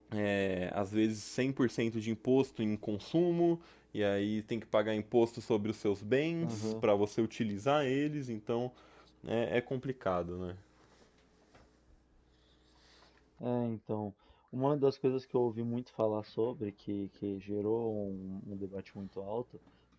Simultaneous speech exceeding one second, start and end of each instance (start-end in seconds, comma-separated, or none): none